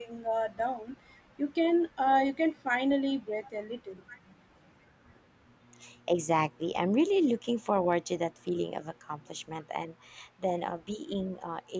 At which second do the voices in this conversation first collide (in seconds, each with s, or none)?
none